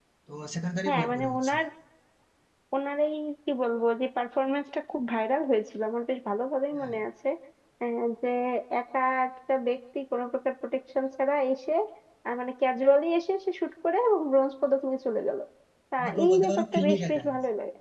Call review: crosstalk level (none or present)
present